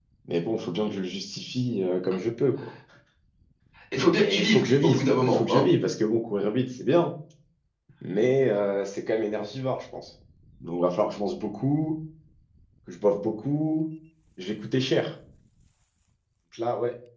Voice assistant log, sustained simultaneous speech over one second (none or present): present